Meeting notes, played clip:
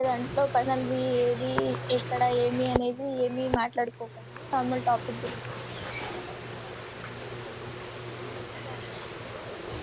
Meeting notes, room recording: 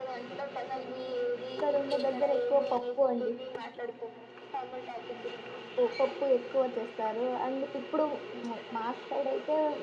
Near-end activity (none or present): present